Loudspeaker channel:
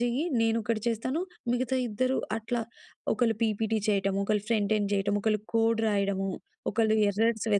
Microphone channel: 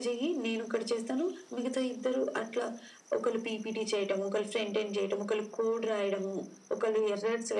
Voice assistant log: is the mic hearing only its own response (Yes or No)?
Yes